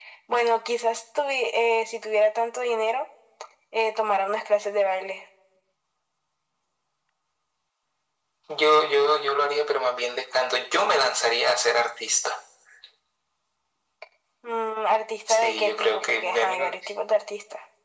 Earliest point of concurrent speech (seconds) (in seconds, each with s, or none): 15.3 s